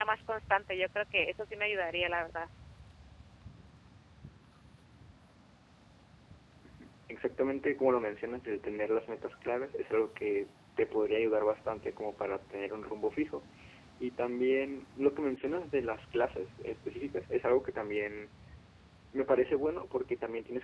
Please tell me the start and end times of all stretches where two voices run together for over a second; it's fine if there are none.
none

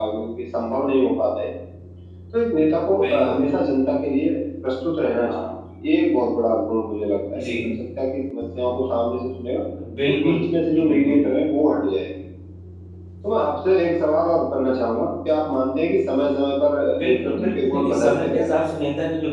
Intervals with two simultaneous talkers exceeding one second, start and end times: 17.0-18.7

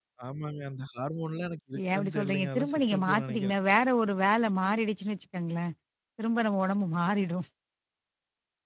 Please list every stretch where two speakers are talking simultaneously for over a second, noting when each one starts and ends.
1.8-3.5

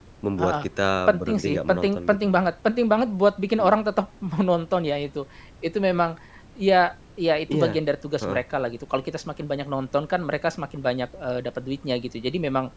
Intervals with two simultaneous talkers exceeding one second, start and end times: 1.1-2.4

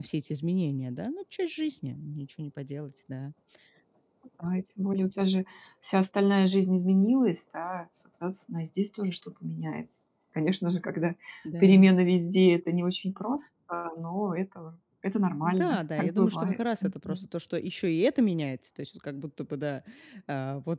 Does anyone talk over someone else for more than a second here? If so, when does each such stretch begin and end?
15.4-17.3

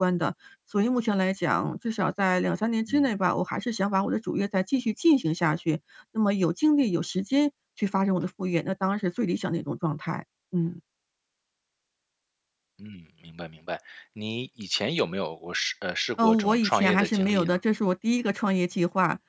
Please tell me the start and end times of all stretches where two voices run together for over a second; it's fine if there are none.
16.2-17.6

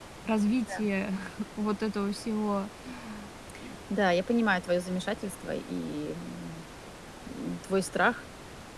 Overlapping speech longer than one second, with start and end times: none

